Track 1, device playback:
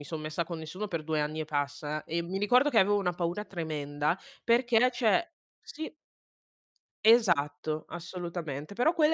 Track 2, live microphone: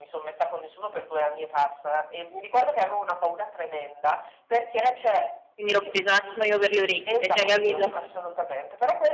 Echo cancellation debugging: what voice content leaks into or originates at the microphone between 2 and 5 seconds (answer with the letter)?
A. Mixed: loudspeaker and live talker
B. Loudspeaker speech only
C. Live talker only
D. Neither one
B